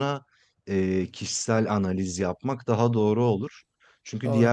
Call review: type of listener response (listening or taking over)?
listening